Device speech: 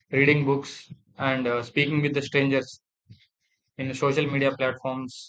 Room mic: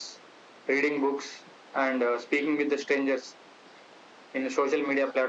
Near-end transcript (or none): none